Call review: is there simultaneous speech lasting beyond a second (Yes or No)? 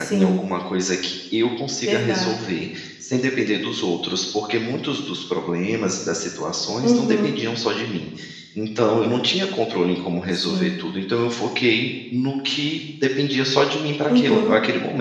No